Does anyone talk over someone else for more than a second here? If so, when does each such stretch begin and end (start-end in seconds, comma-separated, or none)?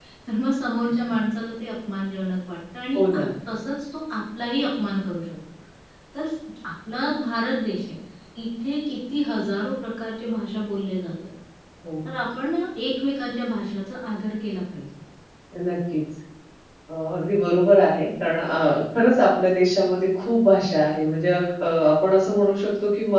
none